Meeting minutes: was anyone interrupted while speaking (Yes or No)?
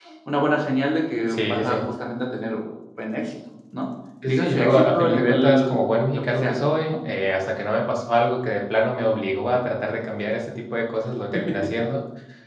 Yes